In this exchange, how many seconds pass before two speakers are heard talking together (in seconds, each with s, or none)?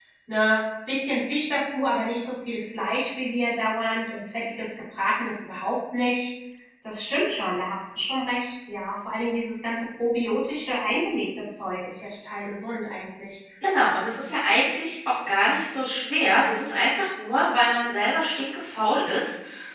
none